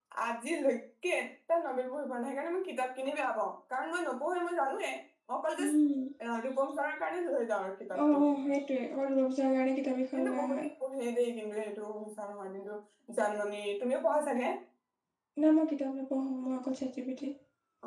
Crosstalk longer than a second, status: none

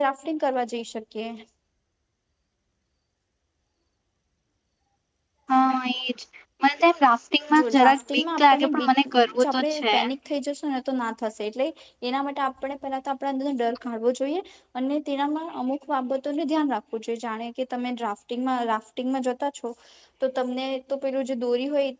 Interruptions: present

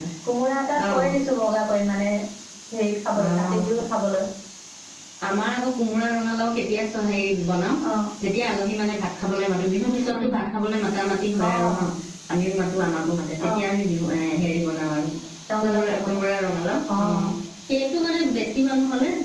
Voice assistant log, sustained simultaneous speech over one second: none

